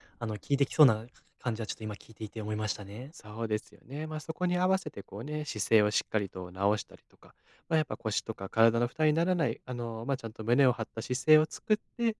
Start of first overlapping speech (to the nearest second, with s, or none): none